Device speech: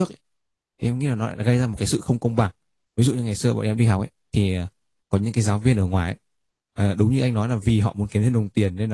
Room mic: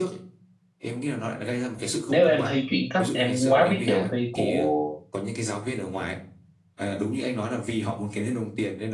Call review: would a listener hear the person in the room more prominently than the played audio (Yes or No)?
Yes